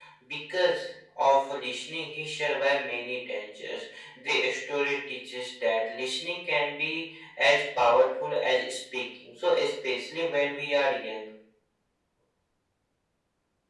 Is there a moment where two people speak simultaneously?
No

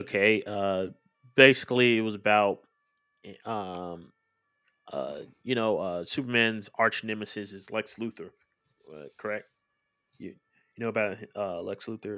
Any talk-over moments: No

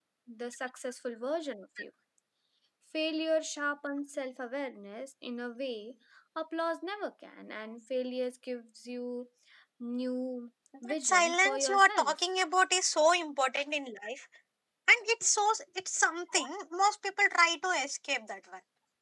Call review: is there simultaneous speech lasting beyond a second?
Yes, from 10.7 s

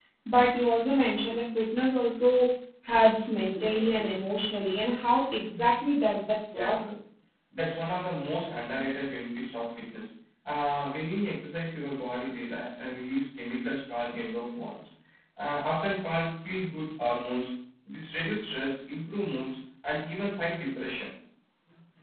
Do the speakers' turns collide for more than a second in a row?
No

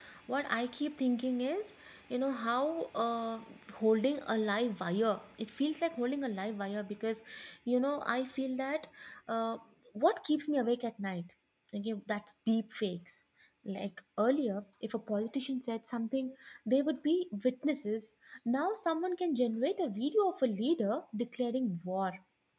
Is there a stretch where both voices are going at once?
No

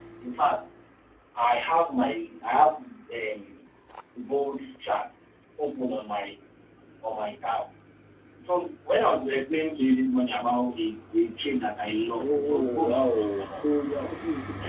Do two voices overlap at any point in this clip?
Yes, from 12.2 s

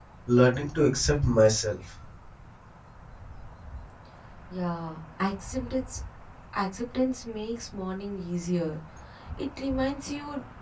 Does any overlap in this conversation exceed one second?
No

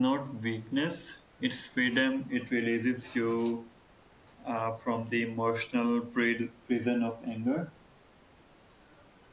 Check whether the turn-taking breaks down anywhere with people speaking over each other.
No

